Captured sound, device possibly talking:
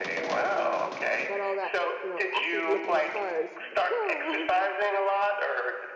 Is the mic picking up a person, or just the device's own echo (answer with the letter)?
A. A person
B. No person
A